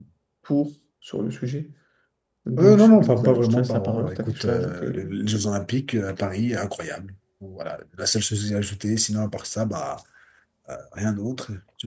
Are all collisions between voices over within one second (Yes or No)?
No